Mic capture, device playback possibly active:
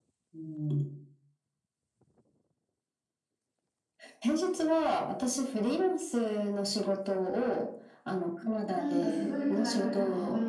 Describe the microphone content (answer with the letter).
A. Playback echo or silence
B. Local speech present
B